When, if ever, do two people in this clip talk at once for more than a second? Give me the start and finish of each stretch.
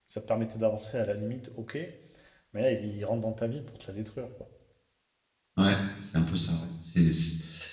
none

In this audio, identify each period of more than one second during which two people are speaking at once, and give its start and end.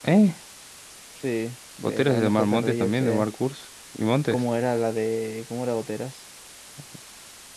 1.8-3.3

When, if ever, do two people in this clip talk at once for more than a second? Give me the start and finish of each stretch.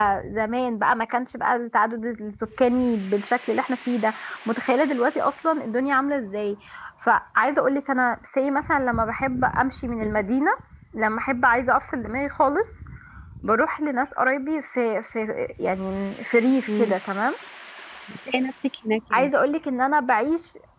none

